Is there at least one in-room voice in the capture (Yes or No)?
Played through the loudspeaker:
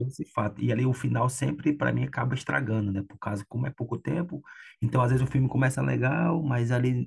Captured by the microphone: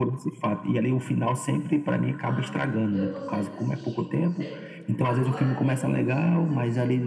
Yes